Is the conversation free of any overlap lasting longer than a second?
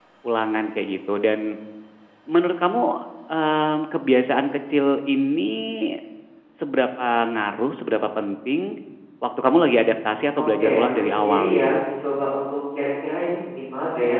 No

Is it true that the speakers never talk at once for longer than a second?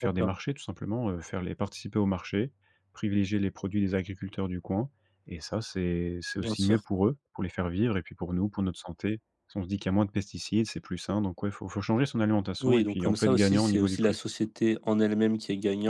No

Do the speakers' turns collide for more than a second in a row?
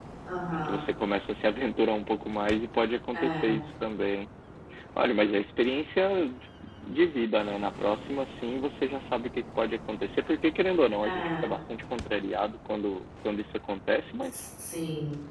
No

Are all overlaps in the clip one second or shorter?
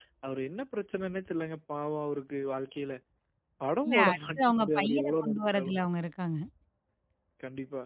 No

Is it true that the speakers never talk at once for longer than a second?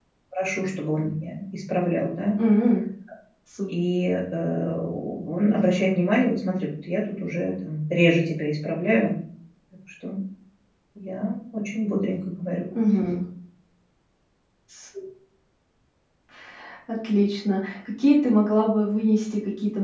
Yes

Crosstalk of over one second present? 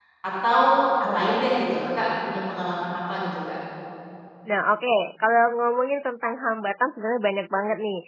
No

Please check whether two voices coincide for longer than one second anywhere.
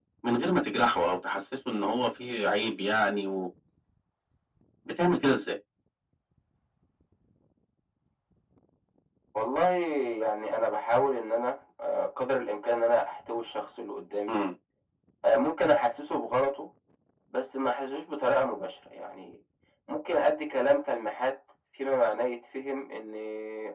No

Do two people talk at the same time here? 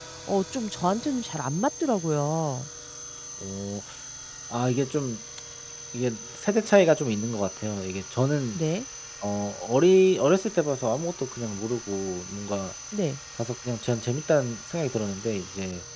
No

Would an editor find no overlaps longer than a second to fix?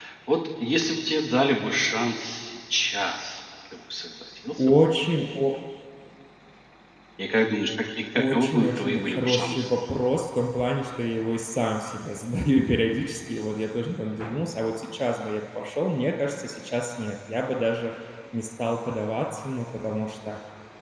No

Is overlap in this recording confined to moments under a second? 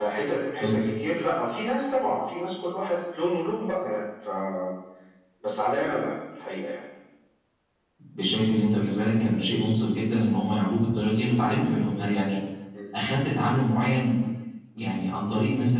Yes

